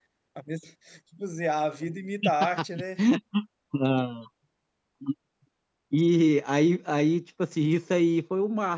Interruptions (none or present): none